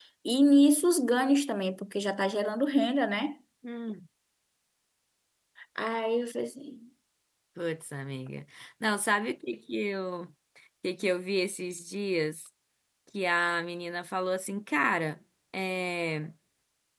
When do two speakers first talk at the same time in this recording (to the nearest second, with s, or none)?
none